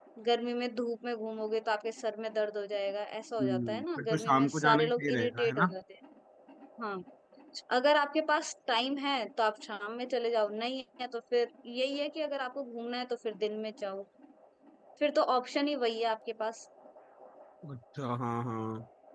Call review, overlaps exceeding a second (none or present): present